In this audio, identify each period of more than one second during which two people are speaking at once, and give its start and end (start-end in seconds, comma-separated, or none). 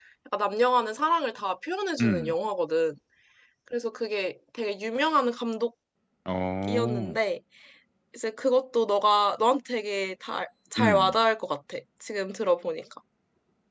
none